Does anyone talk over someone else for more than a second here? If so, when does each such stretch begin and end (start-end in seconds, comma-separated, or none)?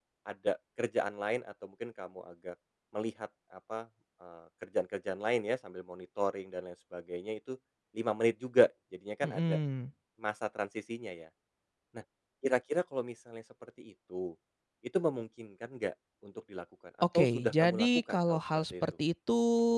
17.1-18.7